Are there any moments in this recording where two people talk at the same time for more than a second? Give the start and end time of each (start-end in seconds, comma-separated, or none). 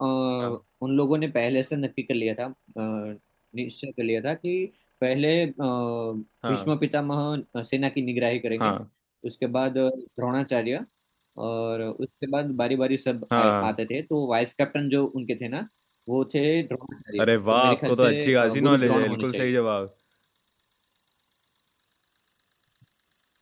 17.2-19.5